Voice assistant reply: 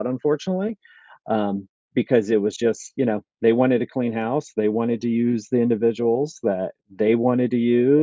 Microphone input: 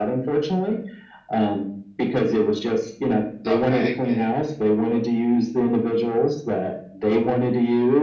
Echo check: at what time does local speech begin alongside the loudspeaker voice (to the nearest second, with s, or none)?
3 s